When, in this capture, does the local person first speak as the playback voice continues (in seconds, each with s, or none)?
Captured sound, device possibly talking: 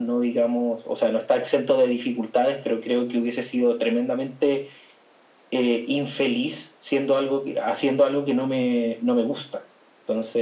none